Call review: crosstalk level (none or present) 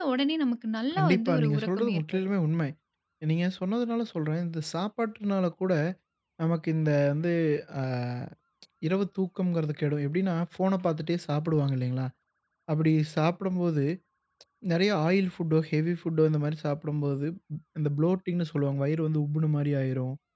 present